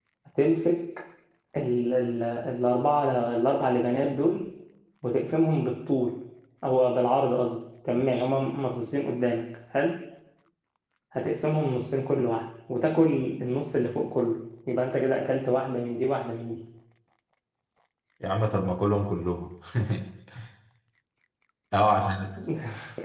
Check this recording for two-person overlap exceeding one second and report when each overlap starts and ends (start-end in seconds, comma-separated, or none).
none